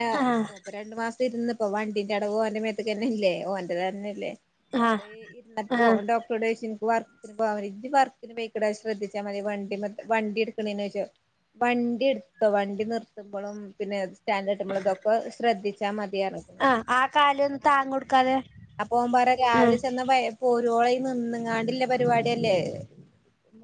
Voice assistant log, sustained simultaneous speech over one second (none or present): none